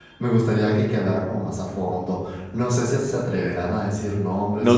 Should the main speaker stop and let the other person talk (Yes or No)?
Yes